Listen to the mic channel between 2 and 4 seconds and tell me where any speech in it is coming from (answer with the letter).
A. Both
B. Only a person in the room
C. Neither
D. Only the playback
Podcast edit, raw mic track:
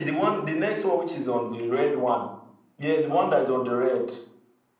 D